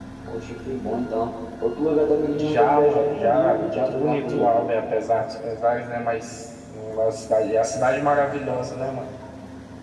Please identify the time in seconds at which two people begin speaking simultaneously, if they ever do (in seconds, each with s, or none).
2.4 s